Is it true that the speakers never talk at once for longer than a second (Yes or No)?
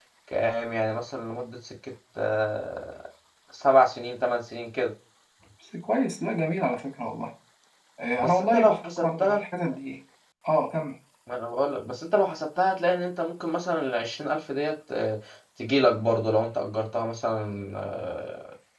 No